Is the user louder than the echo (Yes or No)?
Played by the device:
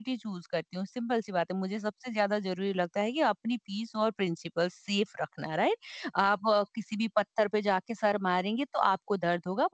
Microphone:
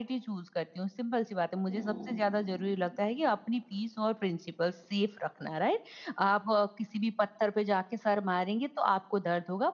No